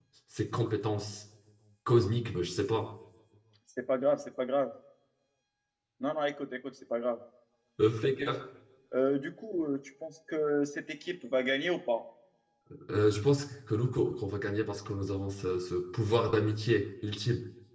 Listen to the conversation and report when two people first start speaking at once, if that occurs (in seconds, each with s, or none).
none